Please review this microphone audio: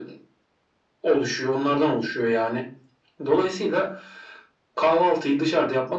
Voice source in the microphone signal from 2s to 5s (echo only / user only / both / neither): echo only